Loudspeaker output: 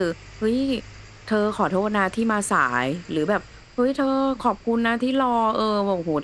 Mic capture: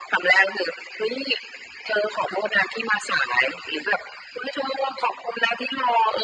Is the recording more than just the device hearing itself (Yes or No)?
No